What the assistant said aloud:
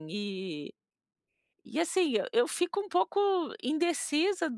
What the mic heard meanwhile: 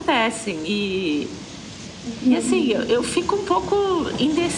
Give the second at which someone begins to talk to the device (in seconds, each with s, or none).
2.0 s